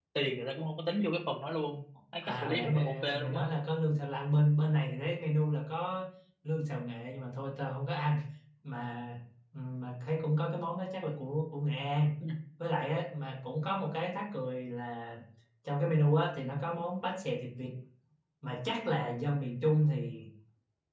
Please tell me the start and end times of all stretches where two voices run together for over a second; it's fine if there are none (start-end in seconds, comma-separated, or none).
2.2-3.5